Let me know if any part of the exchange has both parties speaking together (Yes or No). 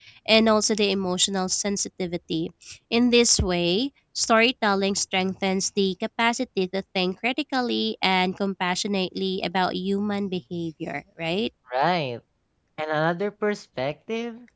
No